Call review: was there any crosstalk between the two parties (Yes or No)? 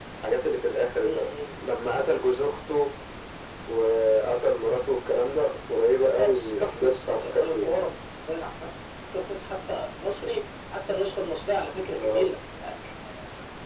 Yes